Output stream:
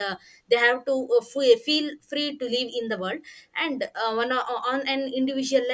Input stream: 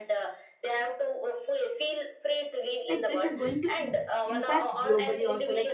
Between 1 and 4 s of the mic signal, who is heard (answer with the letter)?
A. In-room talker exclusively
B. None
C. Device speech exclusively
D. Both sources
D